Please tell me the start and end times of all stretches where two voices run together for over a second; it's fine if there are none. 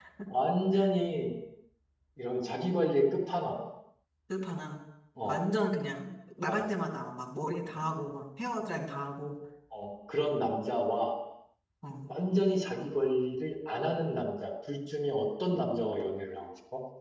none

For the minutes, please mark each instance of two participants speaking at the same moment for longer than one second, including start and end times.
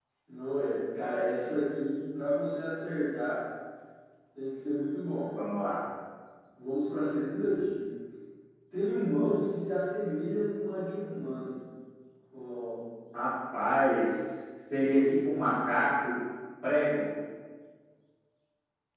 none

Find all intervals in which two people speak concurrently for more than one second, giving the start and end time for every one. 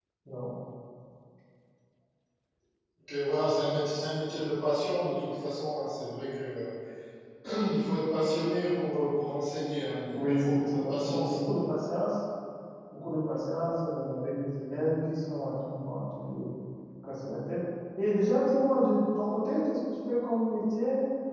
10.2-11.6

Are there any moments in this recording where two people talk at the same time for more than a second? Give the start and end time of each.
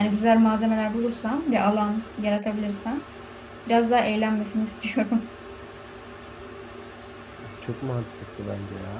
none

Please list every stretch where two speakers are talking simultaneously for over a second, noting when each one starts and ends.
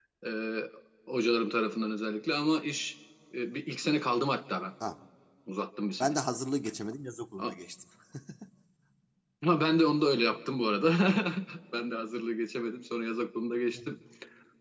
none

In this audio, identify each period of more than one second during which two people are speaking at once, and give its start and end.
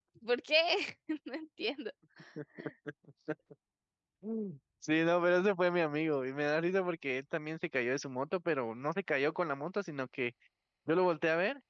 none

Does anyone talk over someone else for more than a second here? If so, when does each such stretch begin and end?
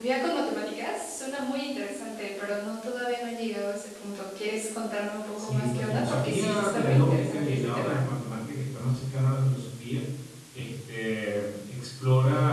5.4-8.0

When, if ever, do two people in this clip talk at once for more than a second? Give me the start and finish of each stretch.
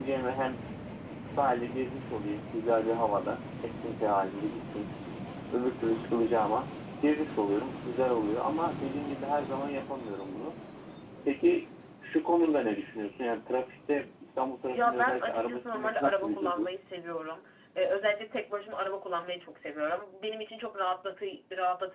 14.7-16.7

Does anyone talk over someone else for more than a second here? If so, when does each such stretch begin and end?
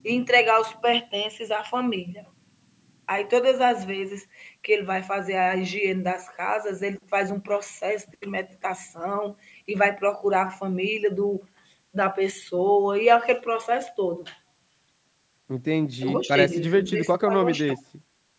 16.0-17.7

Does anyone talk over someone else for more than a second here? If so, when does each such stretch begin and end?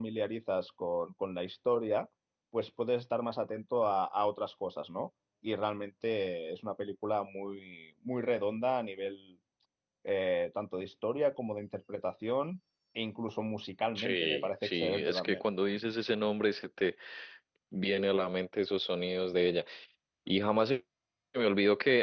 13.9-15.4

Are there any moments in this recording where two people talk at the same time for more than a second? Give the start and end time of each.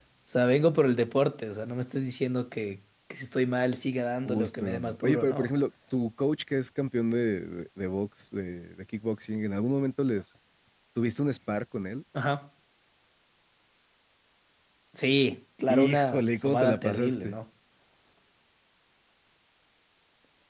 4.2-5.5, 15.7-17.4

